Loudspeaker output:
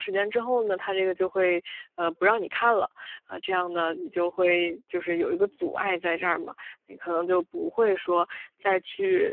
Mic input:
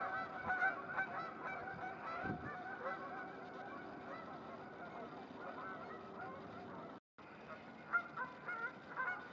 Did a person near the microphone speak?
No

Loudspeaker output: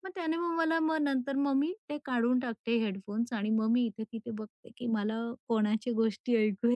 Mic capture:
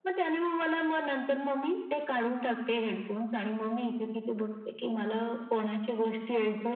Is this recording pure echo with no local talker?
Yes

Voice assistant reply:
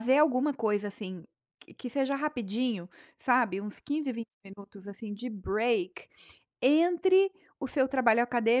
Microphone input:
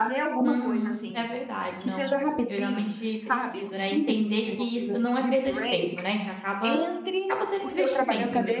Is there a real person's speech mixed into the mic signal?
Yes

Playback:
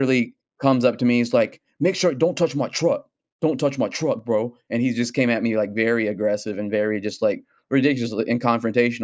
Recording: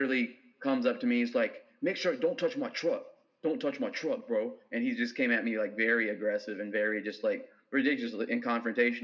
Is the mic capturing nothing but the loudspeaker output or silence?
Yes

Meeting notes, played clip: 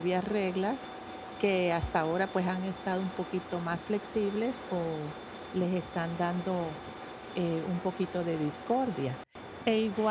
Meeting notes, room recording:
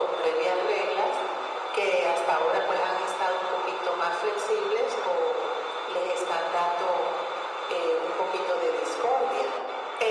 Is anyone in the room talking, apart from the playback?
No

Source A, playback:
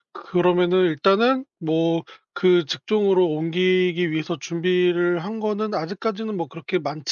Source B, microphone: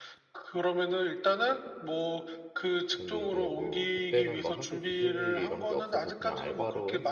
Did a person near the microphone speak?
Yes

